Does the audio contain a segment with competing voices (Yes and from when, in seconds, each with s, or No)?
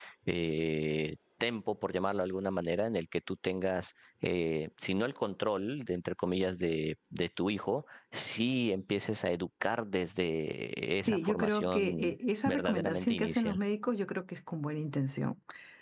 Yes, from 10.9 s